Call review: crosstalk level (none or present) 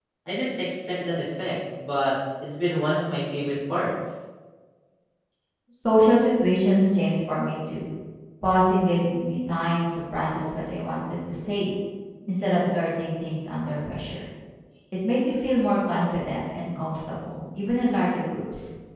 none